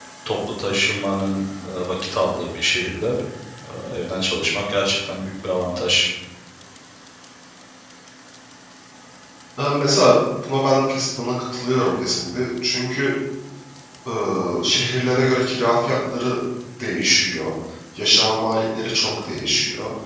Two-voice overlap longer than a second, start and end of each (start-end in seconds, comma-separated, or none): none